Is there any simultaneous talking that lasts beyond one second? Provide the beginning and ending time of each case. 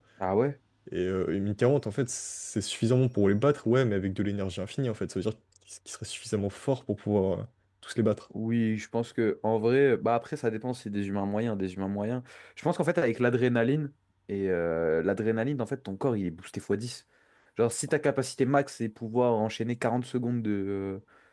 none

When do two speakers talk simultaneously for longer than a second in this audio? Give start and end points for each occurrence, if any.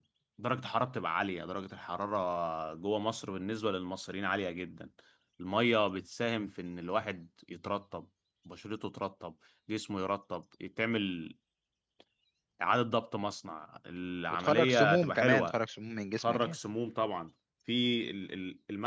14.3-15.5

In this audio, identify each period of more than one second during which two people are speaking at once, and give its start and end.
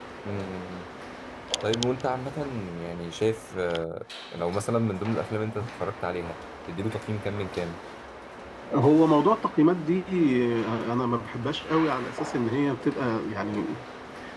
none

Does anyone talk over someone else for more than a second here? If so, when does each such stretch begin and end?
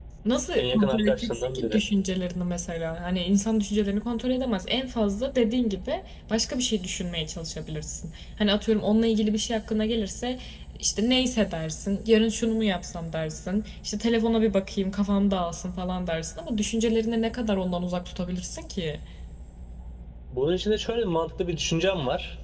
0.6-1.8

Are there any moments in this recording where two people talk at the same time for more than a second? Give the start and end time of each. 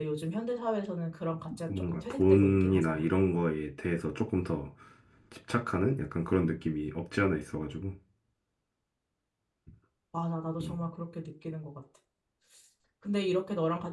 1.7-3.0

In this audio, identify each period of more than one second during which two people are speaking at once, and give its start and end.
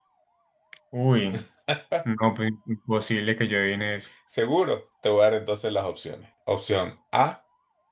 none

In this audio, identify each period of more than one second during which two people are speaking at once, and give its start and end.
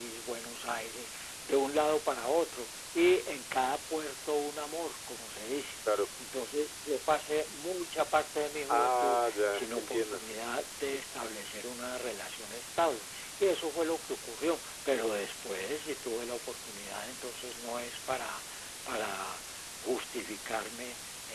8.7-10.2

